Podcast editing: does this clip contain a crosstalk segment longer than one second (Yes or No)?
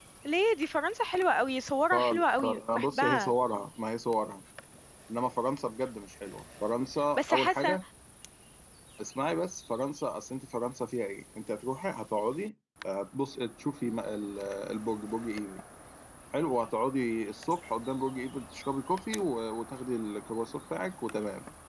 Yes